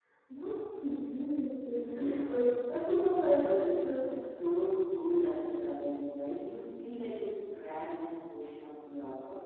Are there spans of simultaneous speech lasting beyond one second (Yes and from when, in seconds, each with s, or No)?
No